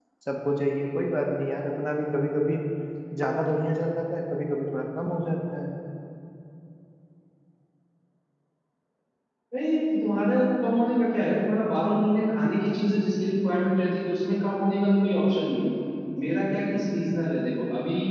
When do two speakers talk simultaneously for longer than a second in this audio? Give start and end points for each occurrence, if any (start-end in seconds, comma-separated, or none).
none